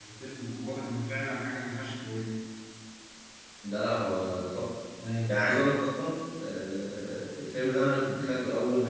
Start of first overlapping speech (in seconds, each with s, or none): none